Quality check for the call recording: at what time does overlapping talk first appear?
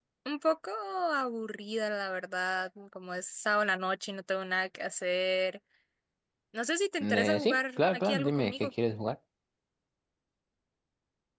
7.0 s

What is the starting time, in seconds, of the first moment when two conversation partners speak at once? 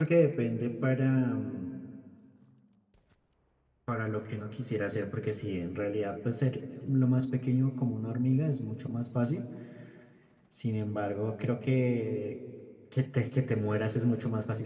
none

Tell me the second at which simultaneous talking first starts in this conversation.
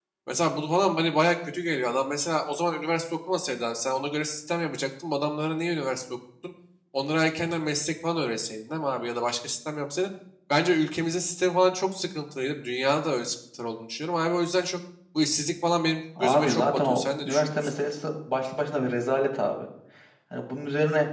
16.2 s

